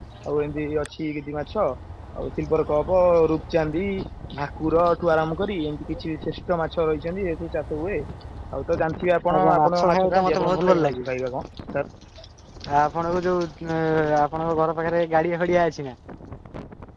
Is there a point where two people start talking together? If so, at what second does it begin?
9.3 s

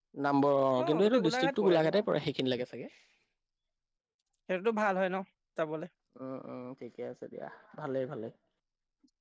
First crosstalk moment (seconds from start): 0.8 s

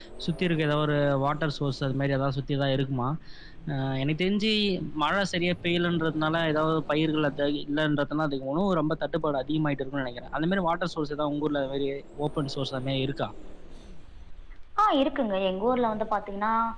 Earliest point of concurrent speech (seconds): none

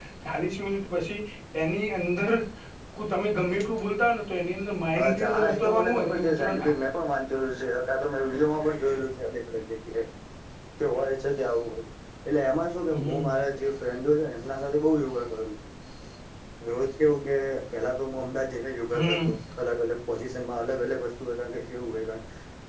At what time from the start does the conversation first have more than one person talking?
5.0 s

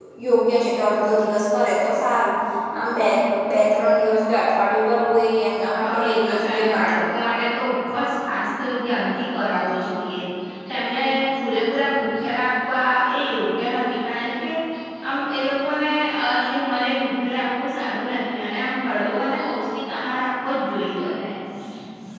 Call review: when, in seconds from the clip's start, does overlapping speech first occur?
5.8 s

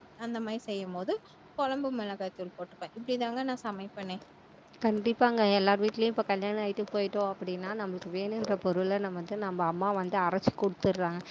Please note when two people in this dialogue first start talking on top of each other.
none

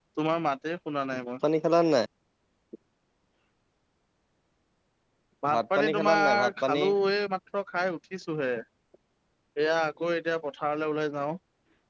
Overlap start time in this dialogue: 5.5 s

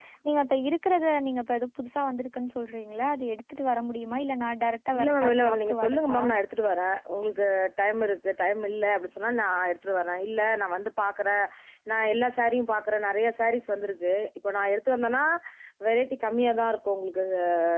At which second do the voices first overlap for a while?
4.9 s

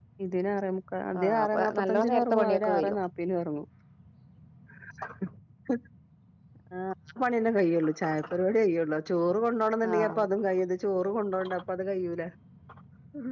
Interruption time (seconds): 1.2 s

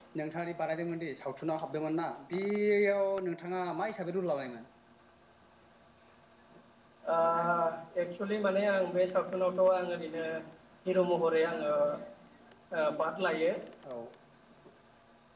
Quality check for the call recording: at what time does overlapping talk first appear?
none

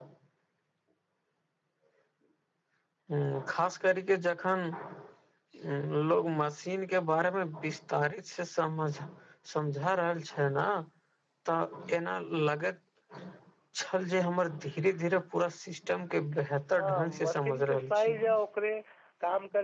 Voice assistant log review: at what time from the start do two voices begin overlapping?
16.8 s

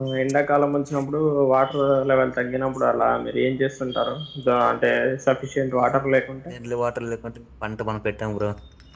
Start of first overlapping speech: none

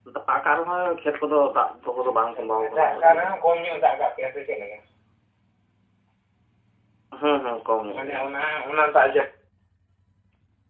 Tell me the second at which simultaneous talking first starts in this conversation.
2.0 s

